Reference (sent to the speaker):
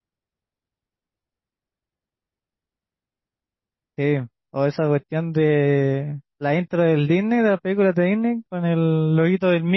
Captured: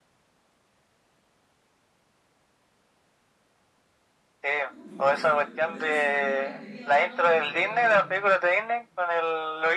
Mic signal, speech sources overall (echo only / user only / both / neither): both